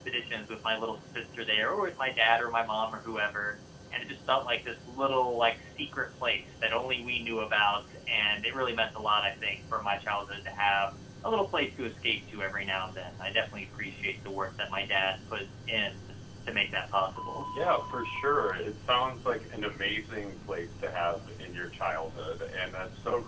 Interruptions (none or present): none